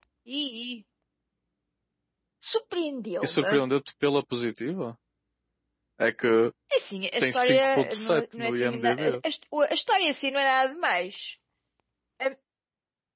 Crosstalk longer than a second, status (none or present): present